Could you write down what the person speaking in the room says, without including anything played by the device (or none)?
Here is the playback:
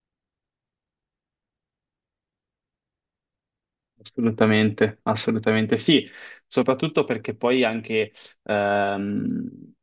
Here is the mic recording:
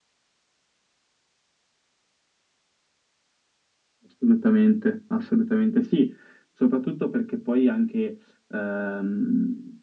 none